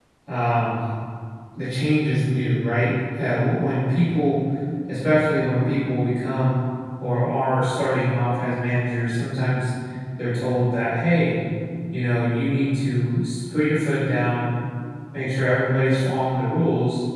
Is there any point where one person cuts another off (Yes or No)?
No